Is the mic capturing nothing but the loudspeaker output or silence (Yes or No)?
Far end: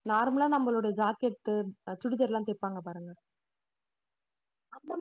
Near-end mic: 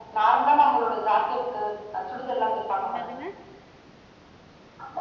No